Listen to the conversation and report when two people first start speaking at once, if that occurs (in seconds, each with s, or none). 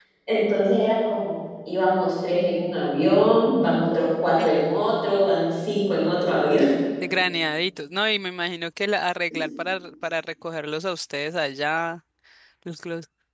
none